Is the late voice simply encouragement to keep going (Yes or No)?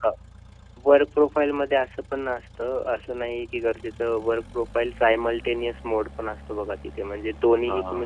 Yes